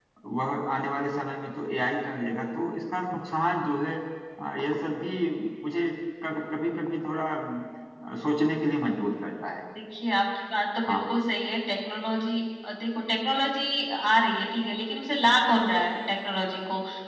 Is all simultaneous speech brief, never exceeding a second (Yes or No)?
Yes